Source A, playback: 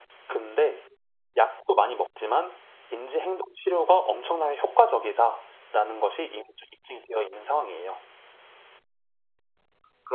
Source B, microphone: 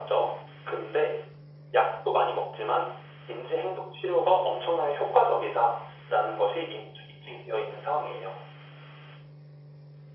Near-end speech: none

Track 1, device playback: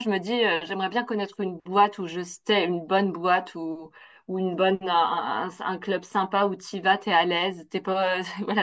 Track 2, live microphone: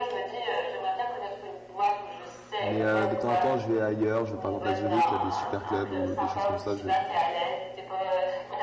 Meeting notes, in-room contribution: present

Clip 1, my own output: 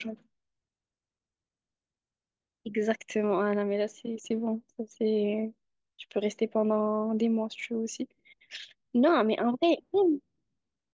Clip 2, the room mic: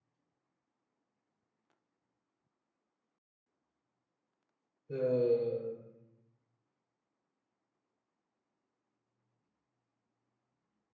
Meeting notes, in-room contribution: present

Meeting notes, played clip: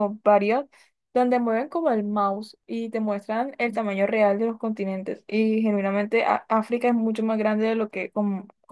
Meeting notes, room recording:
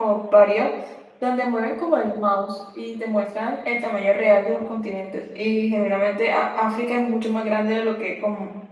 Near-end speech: none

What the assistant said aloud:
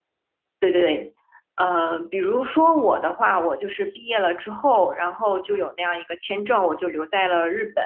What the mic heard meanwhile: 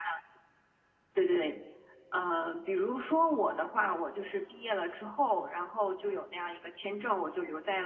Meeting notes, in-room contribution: none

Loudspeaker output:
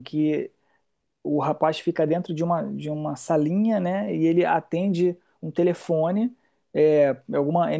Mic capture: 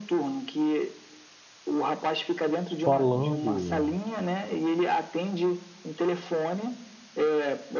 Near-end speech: present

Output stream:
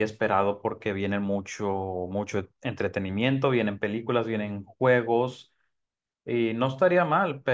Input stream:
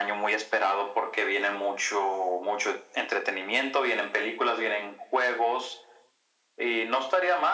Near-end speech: none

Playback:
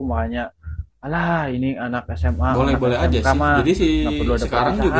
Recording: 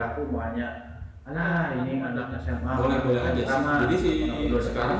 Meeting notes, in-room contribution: present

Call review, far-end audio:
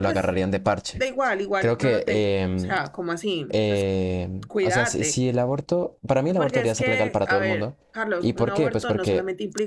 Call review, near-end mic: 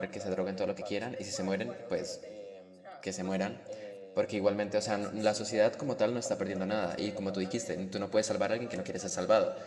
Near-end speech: present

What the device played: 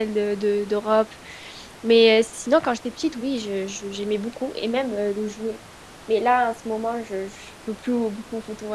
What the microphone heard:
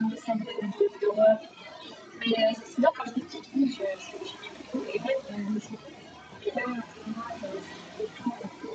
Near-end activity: none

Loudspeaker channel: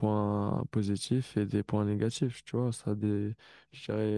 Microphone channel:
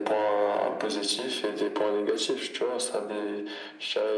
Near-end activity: none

